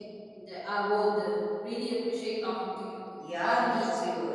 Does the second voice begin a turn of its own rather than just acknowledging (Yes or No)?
Yes